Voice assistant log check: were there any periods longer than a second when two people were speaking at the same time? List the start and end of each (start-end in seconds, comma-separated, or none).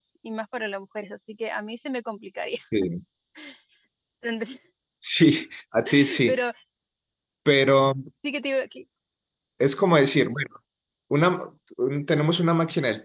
none